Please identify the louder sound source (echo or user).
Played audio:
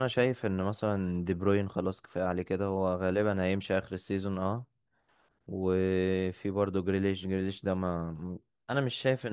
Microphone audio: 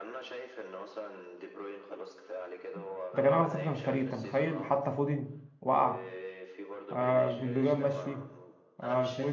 user